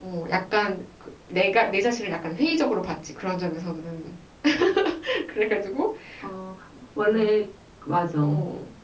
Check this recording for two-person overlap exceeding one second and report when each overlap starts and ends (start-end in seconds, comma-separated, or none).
none